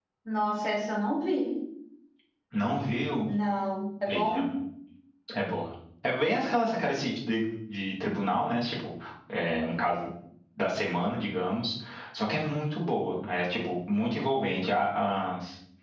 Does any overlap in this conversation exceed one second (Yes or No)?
No